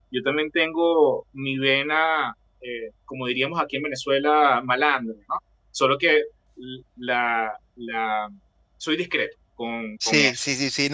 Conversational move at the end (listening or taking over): taking over